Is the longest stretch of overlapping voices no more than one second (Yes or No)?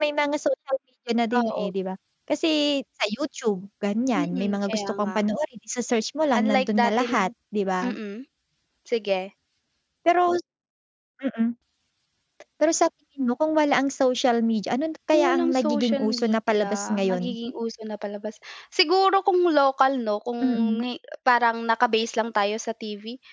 No